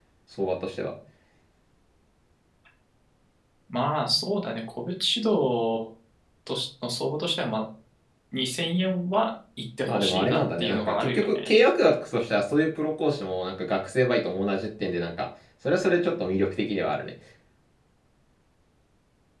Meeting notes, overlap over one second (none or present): present